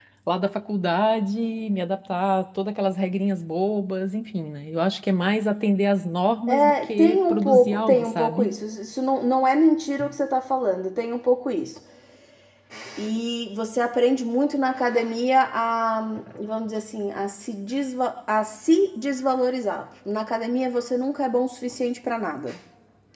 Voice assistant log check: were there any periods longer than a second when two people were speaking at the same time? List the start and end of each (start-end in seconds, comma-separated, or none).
6.5-8.5